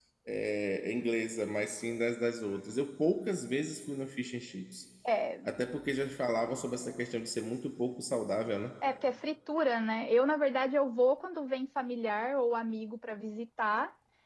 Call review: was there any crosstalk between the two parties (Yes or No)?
No